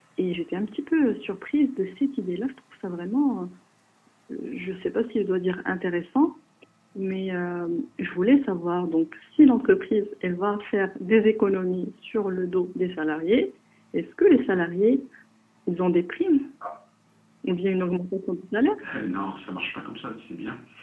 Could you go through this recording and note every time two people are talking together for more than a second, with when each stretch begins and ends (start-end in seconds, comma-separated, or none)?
none